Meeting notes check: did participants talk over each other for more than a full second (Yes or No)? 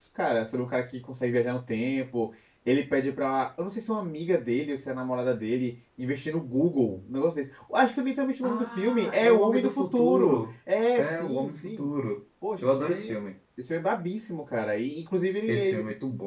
Yes